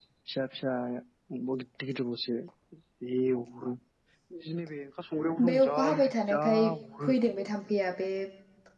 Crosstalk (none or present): present